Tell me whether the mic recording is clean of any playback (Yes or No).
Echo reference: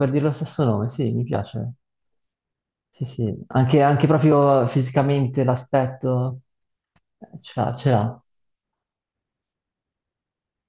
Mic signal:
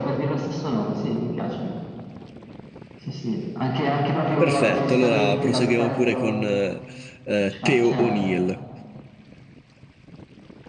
No